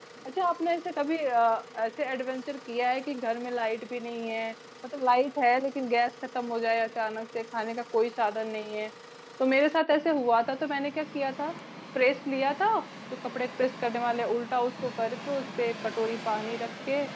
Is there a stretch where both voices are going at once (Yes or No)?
No